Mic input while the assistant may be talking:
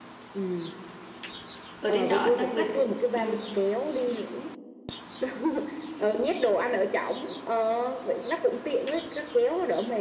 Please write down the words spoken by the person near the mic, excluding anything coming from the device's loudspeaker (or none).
Ở trên đó chắc buổi tối ừ,